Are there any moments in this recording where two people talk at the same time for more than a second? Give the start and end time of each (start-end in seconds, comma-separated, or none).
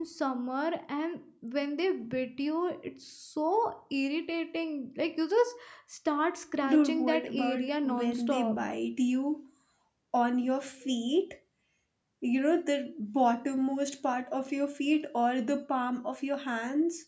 6.7-8.6